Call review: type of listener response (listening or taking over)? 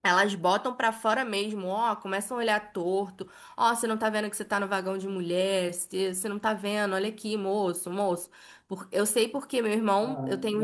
taking over